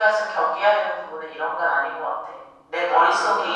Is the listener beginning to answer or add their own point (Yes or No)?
No